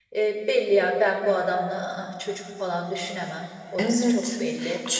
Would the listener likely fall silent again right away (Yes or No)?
No